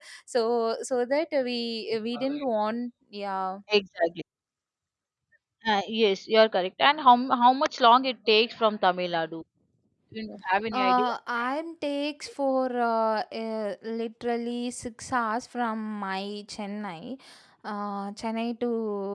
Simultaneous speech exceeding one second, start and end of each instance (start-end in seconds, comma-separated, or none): none